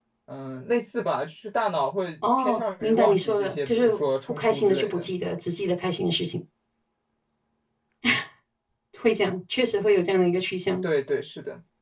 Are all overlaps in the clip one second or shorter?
No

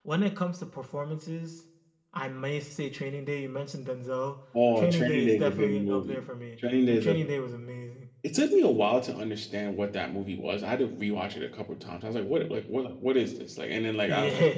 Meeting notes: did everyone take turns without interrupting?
No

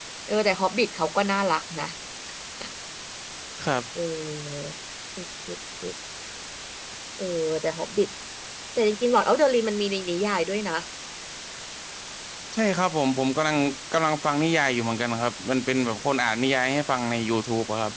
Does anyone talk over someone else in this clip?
No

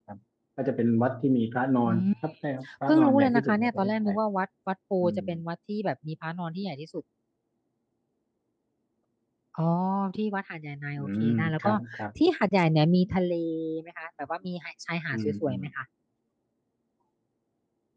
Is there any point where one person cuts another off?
Yes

